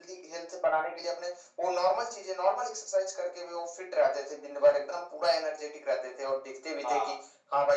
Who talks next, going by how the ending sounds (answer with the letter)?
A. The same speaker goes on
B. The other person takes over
A